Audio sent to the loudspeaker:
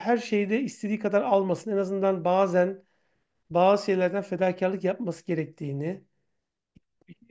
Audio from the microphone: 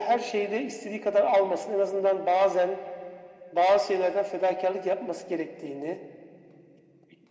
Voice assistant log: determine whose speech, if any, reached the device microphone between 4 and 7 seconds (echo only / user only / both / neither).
echo only